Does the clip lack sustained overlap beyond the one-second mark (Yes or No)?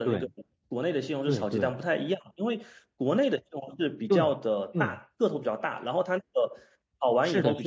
Yes